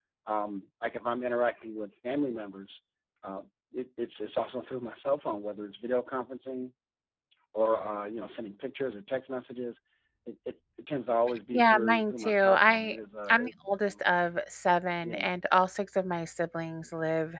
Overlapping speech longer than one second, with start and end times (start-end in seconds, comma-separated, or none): 11.5-13.9